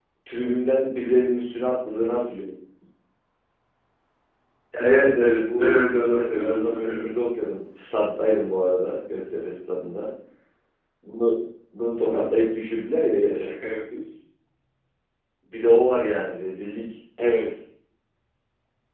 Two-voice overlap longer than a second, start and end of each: 4.8-7.1

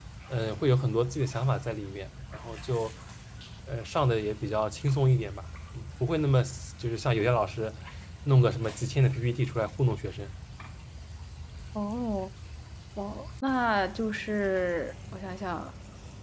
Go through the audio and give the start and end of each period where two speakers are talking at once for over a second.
none

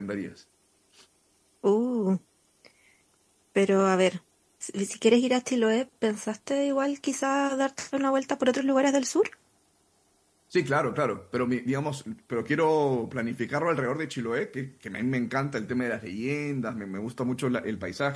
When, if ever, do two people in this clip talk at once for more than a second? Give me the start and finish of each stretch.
none

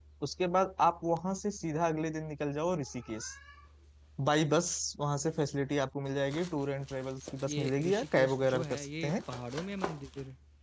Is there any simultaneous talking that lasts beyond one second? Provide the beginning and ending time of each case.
7.5-9.2

